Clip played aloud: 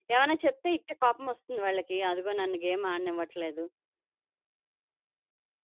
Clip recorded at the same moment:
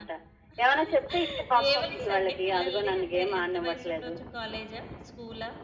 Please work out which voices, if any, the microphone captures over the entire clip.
both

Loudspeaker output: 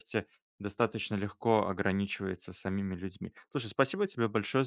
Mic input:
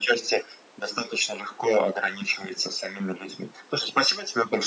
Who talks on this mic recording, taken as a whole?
echo only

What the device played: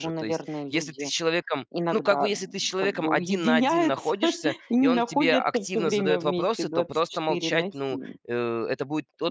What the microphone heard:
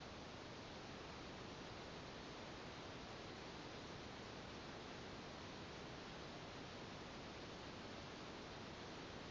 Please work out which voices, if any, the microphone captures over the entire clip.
neither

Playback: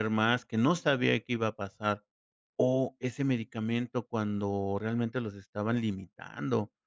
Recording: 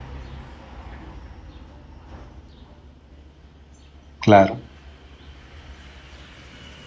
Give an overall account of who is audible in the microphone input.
user only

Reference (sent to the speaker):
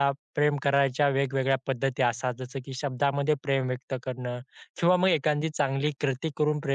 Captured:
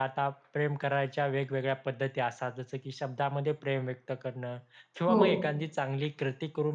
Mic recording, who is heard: both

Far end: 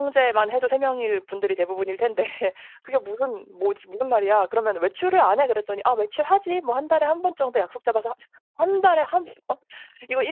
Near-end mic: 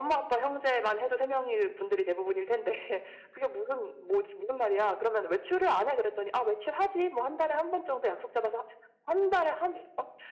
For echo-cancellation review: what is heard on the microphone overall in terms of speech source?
echo only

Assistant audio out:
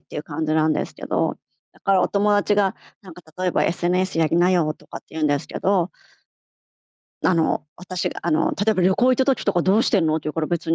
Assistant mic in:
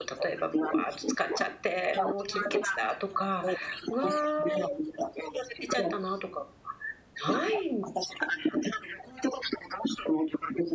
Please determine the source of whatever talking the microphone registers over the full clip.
both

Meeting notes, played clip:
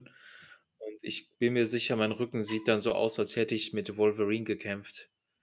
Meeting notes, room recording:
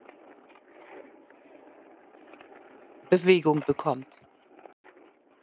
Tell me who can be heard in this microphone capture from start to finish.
user only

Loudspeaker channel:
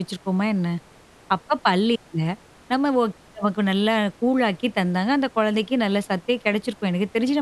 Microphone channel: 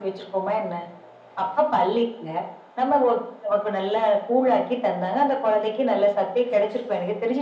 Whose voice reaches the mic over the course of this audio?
echo only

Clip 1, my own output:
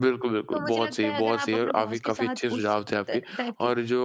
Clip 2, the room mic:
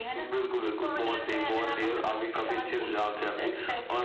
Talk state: echo only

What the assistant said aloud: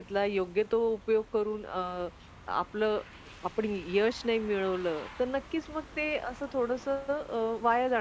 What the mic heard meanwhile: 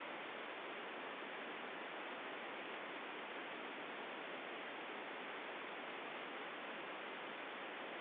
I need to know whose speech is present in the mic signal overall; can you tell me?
neither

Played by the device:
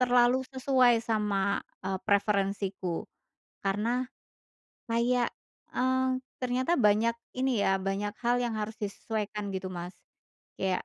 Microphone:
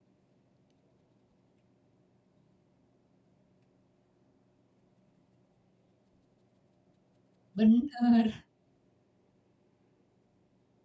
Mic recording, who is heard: user only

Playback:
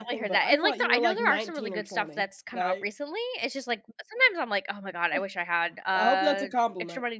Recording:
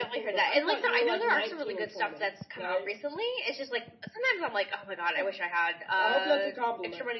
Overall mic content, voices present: echo only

